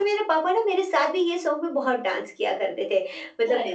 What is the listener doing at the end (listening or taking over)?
listening